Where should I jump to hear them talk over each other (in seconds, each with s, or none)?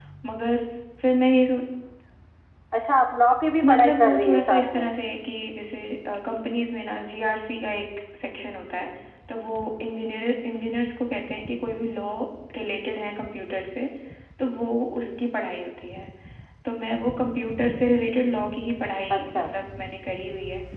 3.6 s